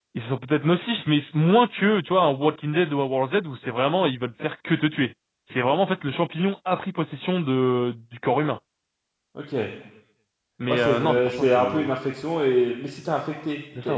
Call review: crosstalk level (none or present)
present